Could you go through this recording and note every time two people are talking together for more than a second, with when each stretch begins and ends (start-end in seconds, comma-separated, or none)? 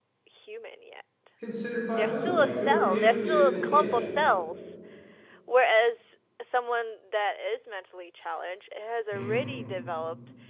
1.9-4.0